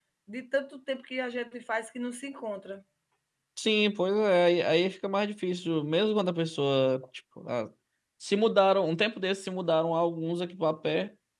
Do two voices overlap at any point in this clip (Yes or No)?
No